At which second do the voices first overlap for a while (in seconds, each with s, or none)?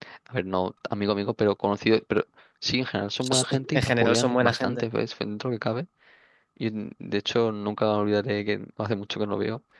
3.2 s